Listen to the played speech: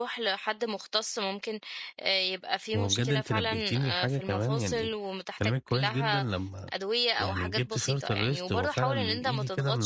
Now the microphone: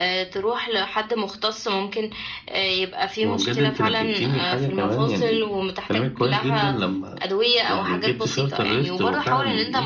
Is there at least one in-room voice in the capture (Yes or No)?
No